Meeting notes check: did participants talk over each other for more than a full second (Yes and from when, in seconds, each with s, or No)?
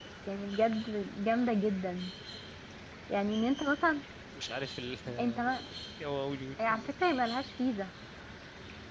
No